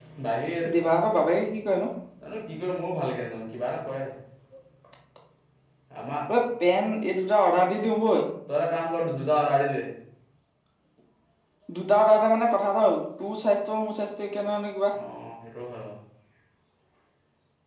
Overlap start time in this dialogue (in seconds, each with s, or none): none